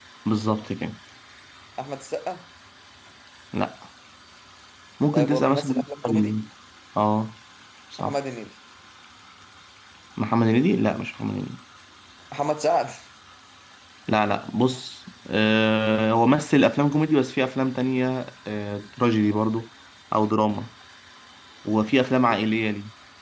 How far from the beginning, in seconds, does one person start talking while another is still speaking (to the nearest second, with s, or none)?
5 s